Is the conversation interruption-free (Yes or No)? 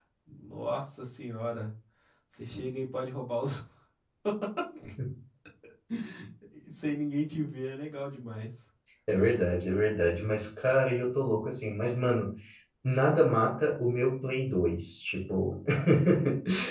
Yes